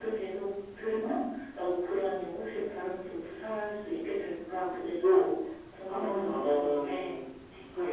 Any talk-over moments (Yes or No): Yes